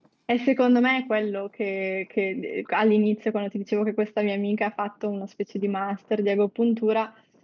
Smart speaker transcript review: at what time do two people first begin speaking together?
none

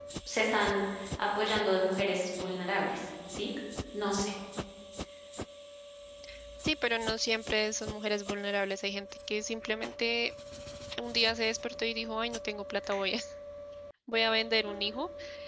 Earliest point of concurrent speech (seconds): none

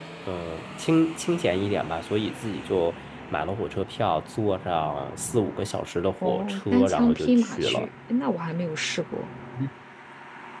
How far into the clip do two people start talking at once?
6.2 s

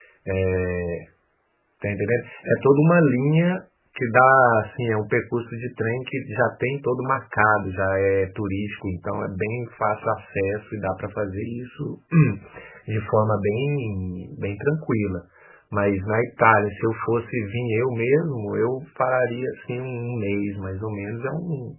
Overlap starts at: none

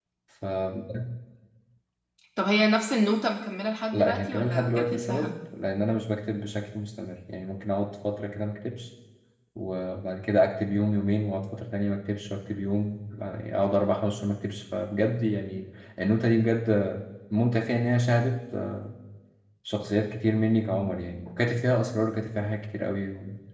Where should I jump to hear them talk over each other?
3.9 s

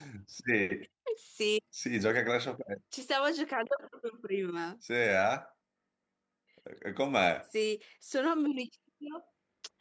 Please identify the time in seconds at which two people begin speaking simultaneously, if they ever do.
none

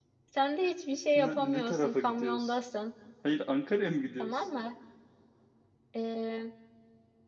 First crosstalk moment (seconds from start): 1.1 s

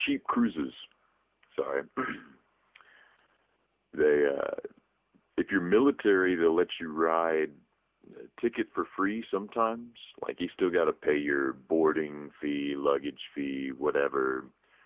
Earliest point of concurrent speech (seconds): none

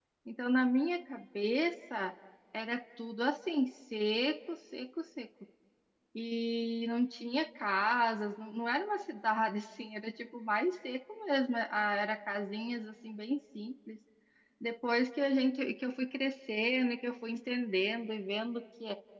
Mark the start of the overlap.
none

